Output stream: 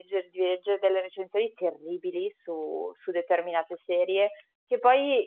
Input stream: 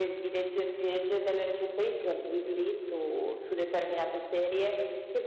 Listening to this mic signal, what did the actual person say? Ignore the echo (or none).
none